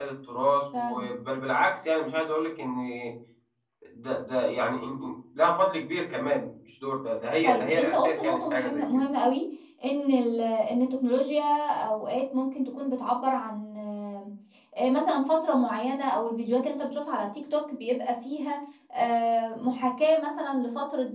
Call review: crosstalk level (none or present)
present